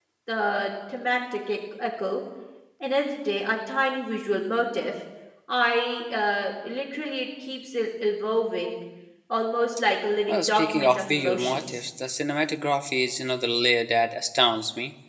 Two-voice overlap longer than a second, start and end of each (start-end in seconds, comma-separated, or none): 10.3-11.8